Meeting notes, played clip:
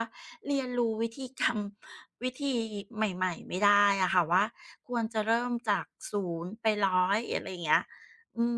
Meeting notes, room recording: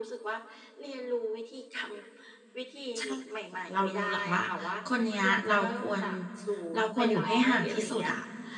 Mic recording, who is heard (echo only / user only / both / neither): both